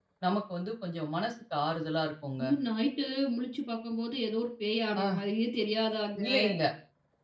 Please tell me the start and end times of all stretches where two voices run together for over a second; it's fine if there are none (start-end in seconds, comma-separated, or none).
none